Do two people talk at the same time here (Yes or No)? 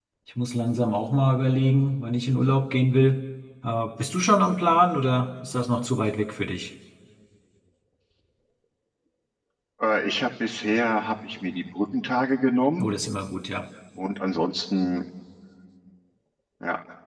No